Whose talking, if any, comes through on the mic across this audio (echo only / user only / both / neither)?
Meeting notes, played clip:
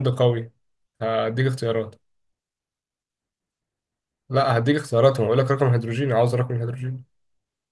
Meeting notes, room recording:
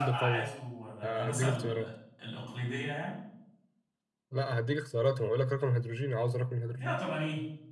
both